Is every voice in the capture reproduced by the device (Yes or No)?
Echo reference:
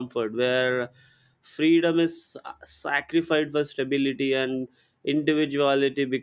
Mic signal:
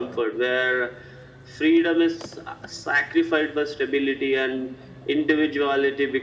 Yes